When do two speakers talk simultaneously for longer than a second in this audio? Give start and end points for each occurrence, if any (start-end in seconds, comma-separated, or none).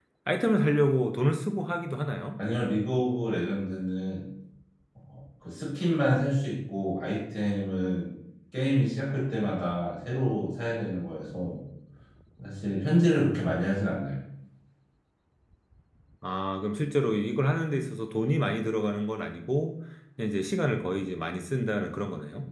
none